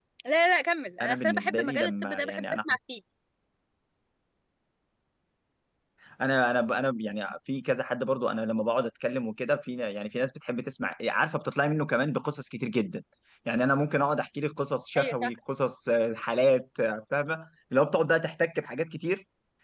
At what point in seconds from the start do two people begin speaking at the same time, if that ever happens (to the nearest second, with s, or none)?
1 s